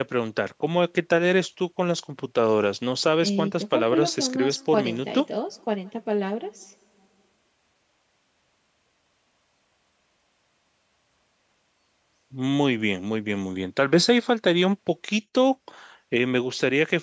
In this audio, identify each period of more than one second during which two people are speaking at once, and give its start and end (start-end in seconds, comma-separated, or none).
3.2-5.2